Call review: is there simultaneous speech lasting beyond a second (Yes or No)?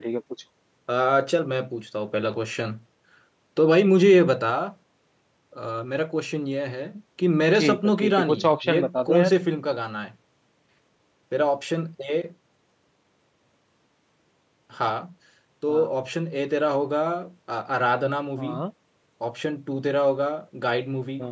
Yes